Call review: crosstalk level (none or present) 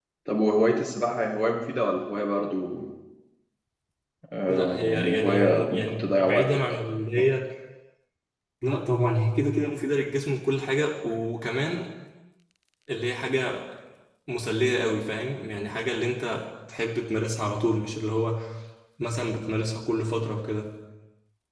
present